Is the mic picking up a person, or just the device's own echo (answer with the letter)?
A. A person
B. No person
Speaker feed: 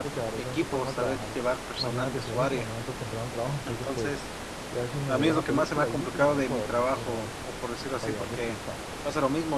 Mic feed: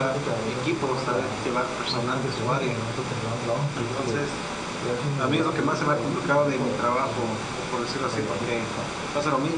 B